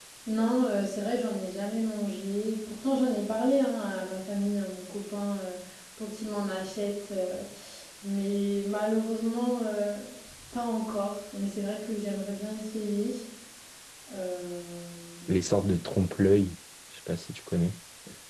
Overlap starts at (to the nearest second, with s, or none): none